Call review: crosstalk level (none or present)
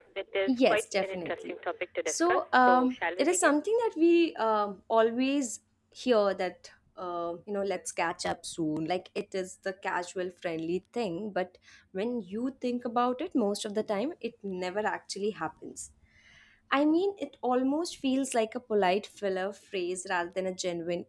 present